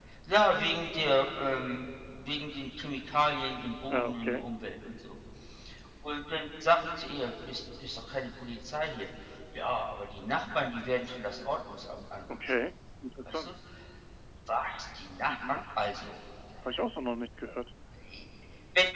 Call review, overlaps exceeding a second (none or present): none